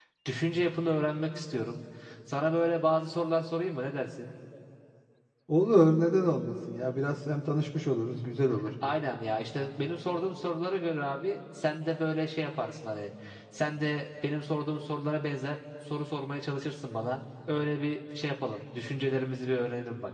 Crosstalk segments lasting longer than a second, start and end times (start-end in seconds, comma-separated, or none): none